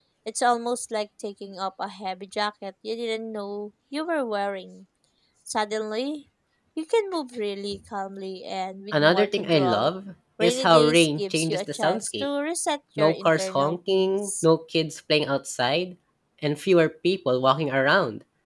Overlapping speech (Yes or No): Yes